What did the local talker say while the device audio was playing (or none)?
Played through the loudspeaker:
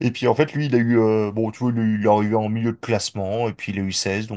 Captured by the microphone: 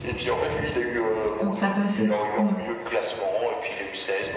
Donc, ça passait. Mm.